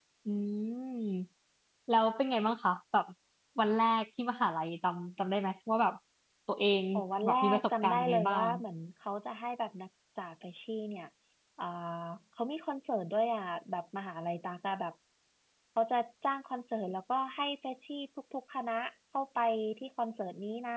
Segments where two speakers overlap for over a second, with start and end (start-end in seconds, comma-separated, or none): 7.2-8.5